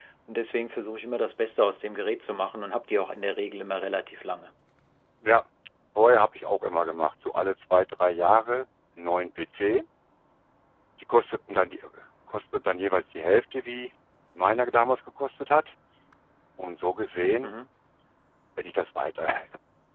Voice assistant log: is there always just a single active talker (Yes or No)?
Yes